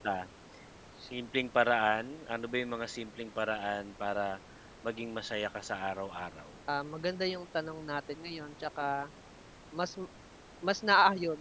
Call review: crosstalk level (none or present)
none